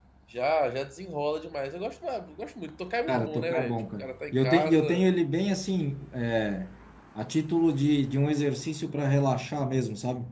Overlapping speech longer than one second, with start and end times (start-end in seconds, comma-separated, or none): 3.1-4.8